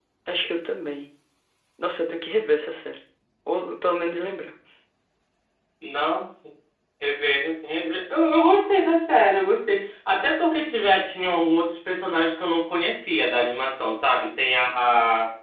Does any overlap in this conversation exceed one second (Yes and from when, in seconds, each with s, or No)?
No